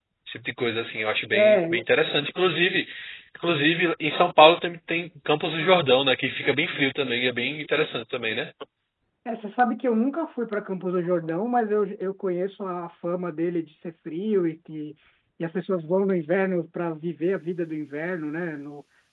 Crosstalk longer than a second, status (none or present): none